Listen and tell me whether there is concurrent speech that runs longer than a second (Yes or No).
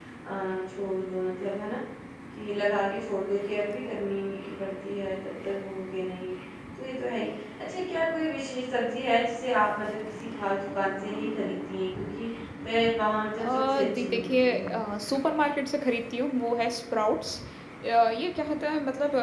Yes